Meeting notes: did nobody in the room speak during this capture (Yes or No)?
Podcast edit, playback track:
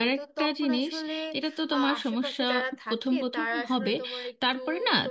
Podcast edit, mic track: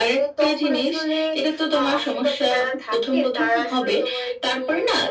Yes